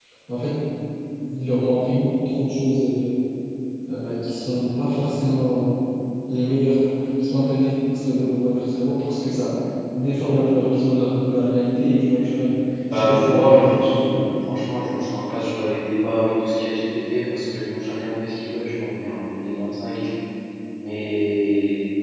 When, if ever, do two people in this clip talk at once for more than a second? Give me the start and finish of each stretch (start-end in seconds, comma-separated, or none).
12.9-14.3